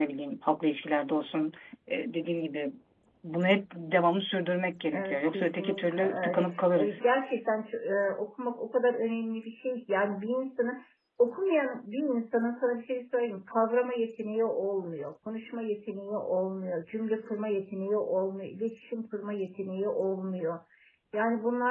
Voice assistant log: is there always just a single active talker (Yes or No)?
No